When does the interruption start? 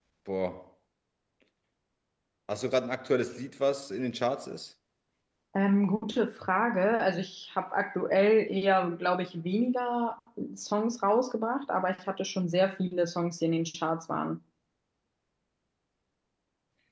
none

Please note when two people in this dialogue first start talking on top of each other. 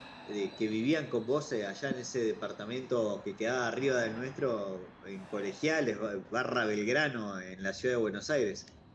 none

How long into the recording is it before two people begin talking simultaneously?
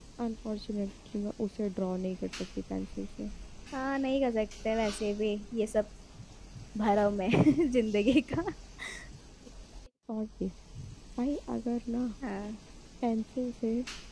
none

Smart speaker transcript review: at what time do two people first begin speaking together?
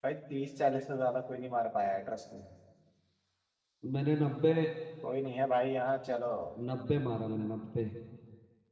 none

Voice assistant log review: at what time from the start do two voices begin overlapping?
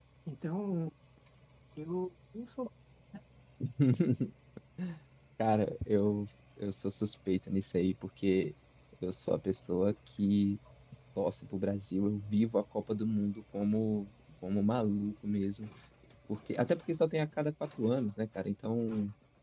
none

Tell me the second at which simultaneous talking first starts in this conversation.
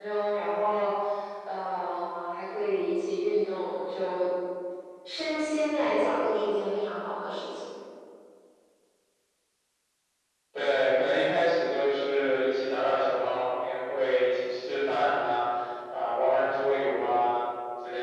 none

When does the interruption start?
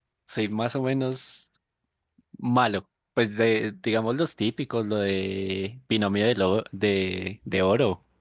none

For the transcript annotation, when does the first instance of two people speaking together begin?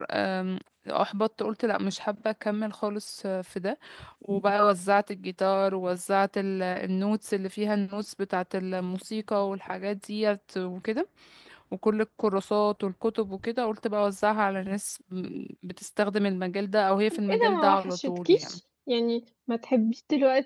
17.1 s

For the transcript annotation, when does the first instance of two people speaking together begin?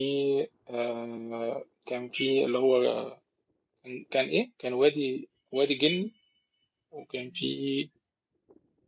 none

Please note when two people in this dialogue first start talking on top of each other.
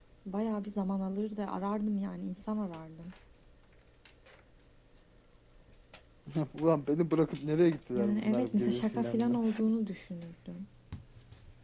7.9 s

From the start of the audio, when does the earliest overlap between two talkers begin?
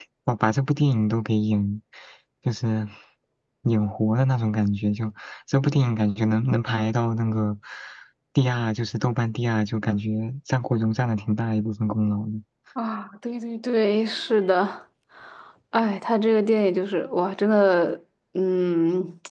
none

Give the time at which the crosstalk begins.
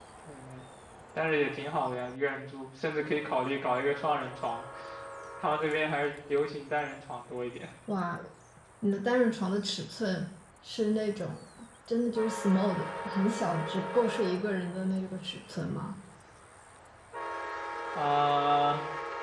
none

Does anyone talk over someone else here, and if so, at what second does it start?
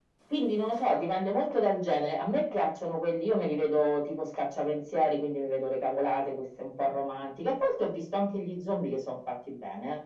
none

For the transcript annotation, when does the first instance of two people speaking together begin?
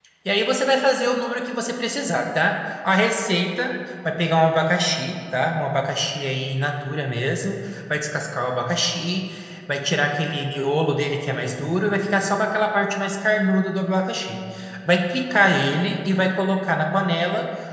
none

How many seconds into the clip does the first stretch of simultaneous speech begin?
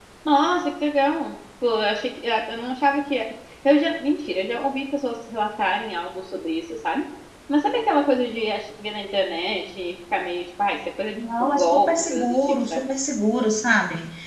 11.2 s

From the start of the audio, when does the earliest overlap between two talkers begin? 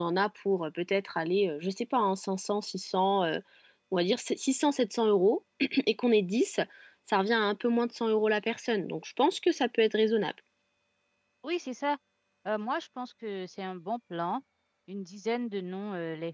none

